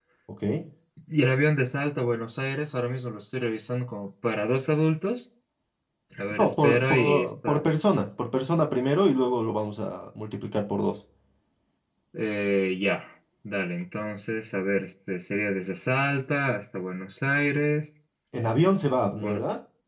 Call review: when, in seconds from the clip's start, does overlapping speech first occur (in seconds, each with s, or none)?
6.4 s